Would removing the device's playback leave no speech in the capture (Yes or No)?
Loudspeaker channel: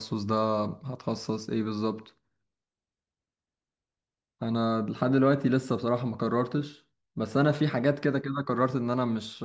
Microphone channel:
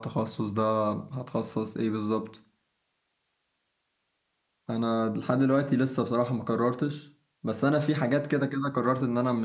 Yes